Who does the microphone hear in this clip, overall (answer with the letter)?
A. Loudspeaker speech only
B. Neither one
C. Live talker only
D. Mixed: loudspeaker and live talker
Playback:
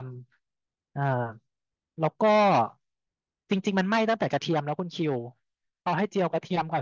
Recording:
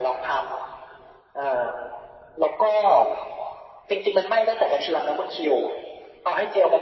A